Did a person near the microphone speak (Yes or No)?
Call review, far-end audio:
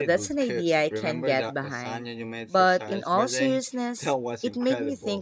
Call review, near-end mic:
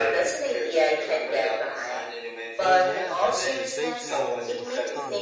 Yes